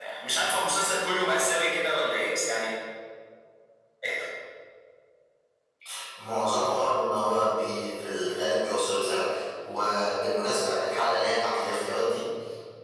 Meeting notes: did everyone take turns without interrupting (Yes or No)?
Yes